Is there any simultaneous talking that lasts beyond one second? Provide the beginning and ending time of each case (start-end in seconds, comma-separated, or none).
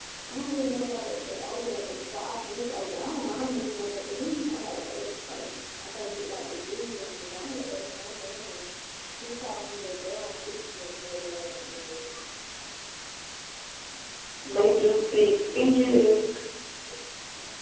none